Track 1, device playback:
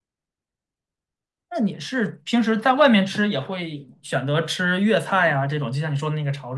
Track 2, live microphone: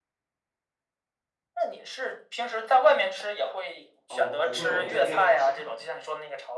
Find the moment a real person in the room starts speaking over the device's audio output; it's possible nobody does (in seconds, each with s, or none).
4.1 s